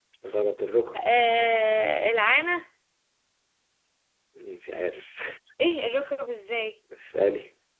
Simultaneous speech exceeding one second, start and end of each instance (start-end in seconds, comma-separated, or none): none